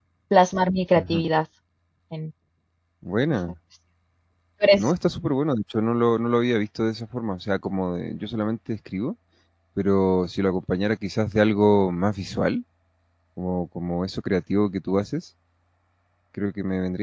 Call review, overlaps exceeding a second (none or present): none